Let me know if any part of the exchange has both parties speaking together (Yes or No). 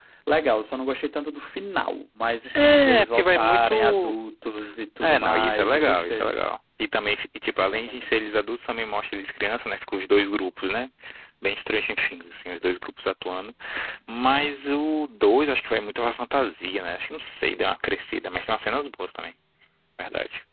Yes